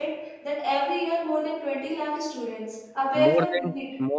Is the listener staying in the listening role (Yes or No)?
No